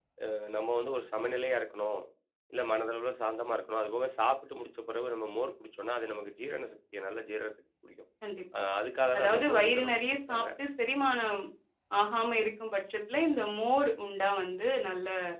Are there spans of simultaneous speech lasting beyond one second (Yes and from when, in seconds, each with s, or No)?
Yes, from 9.2 s